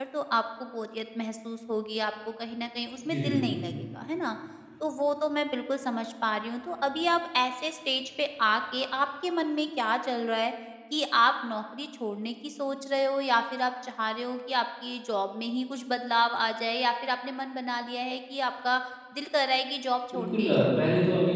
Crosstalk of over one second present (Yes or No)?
No